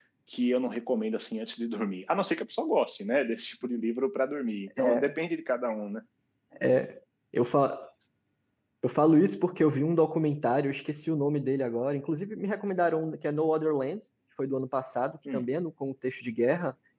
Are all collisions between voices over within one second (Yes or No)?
Yes